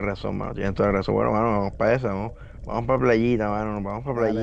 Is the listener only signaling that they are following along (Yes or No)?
No